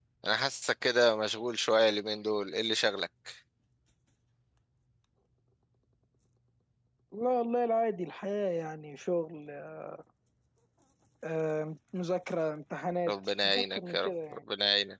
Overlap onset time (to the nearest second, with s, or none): 13 s